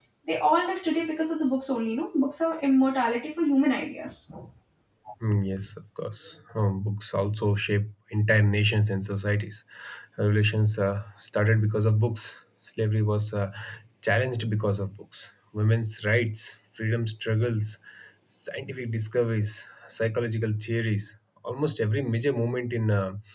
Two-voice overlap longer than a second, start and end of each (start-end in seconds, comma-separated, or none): none